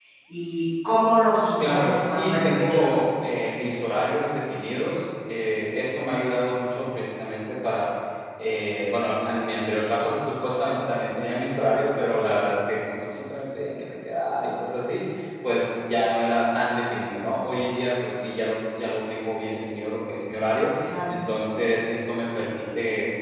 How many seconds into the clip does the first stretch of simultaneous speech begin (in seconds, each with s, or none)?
1.7 s